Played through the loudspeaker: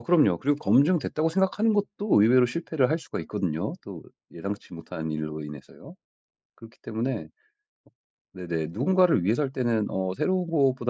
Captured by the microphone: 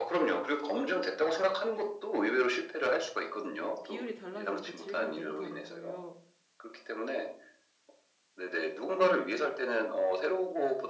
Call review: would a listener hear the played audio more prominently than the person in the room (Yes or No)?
Yes